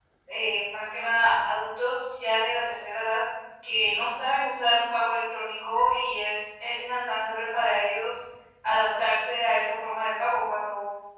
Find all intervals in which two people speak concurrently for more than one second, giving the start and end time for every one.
none

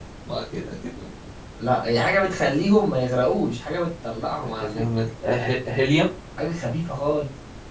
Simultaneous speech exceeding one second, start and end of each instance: none

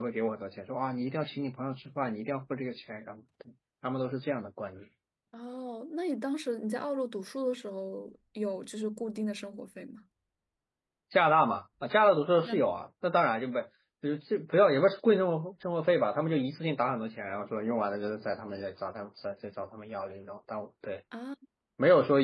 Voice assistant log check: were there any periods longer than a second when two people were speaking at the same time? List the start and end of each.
none

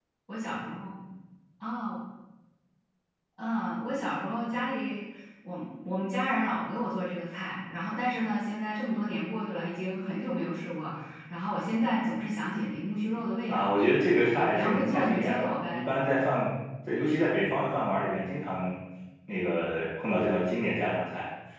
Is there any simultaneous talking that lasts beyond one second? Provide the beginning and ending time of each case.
14.3-15.9

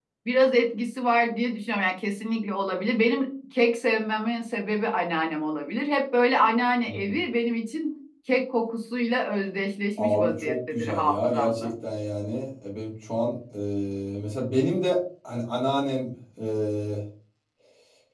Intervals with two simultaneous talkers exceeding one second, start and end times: 10.0-11.7

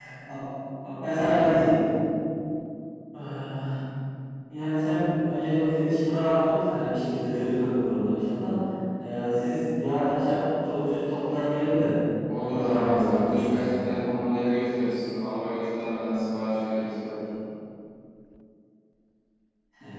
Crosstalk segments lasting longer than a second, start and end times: 12.3-13.7

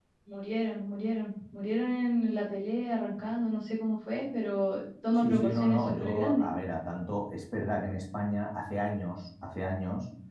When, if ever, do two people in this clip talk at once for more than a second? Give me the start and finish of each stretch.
5.2-6.5

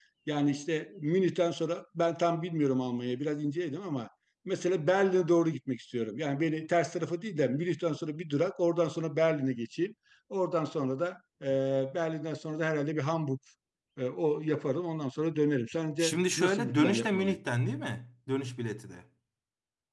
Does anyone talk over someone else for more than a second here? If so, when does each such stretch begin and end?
16.0-17.4

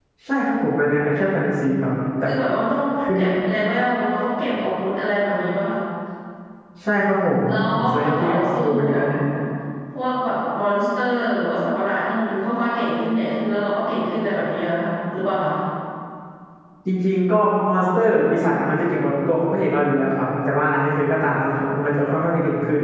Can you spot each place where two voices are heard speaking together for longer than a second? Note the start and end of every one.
7.5-9.0

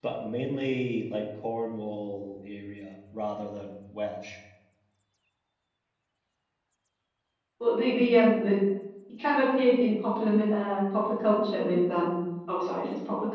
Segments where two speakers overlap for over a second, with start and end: none

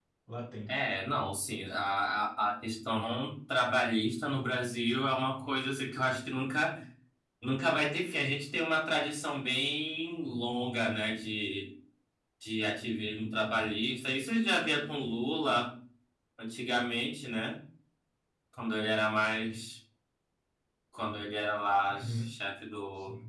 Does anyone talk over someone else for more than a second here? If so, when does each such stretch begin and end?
none

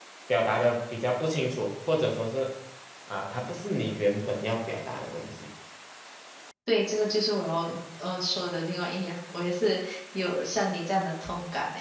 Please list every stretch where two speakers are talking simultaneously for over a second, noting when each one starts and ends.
none

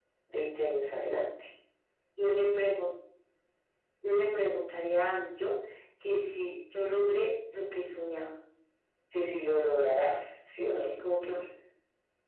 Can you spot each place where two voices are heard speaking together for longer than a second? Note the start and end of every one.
none

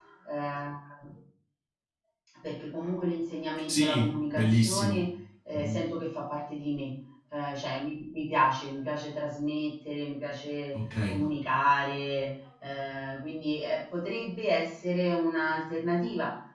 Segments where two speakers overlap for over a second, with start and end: 3.7-5.0

